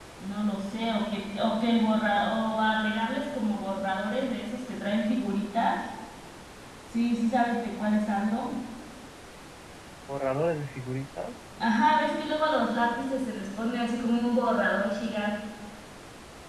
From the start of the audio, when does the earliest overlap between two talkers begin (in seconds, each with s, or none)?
none